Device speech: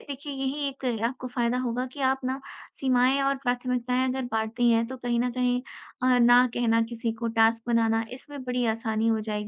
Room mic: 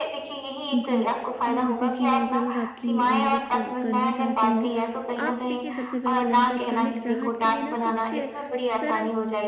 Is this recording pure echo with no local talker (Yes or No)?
No